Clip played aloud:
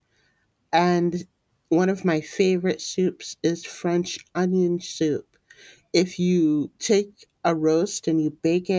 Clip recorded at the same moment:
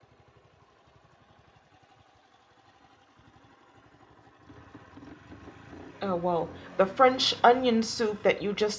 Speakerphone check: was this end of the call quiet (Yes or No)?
No